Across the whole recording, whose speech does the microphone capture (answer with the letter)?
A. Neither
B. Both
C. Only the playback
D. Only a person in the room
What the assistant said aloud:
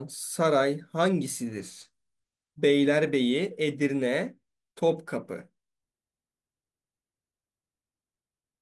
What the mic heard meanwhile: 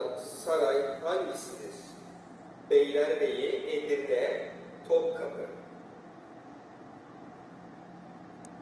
C